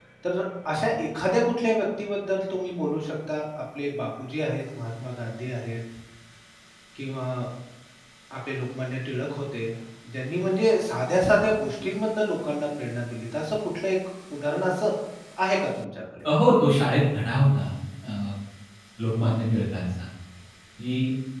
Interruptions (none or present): none